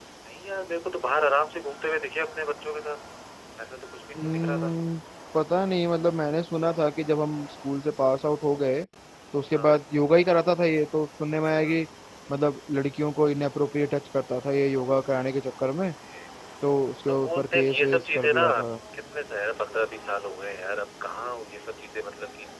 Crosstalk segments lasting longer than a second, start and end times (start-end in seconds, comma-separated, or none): 17.1-18.4